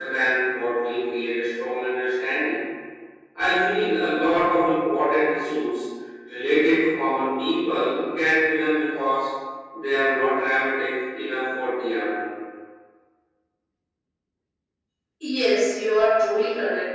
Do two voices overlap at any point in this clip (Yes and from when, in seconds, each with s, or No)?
No